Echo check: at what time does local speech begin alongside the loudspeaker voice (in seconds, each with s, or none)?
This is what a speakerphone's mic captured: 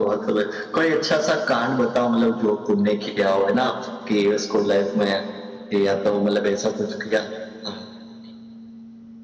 none